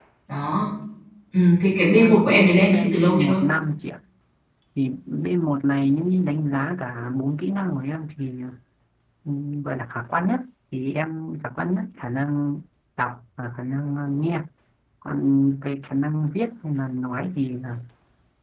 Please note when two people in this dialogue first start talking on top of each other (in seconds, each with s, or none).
1.9 s